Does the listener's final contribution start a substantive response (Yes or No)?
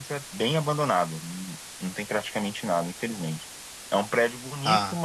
No